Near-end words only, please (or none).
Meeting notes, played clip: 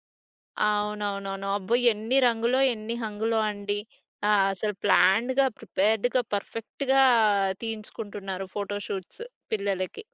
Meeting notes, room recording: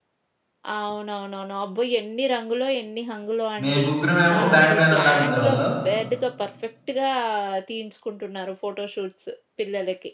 మేము ముగ్గురమేమో బ్యాండ్ మేళంలాగా ఉండేవాళ్ళం.